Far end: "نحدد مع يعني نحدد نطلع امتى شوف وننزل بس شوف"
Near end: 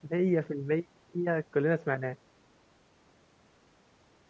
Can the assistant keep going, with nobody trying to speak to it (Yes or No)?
No